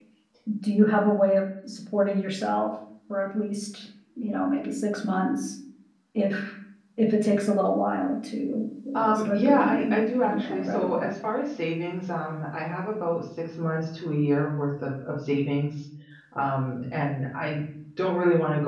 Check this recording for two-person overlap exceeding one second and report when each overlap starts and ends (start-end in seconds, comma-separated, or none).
9.0-11.1